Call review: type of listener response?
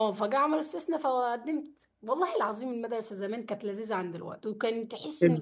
listening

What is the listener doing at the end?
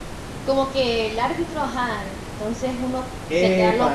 taking over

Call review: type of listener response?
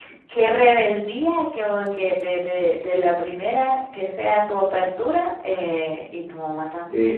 taking over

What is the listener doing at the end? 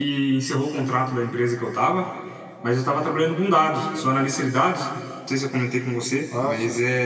listening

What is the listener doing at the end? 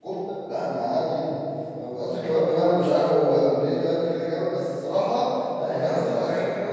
taking over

